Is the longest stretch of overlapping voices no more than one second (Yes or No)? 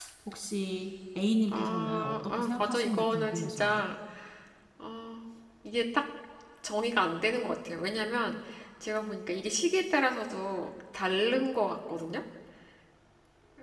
No